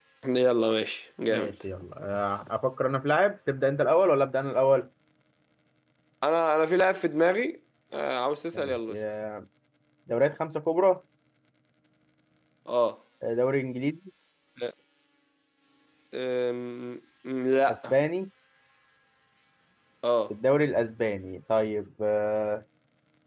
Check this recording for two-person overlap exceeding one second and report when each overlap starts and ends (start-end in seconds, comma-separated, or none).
none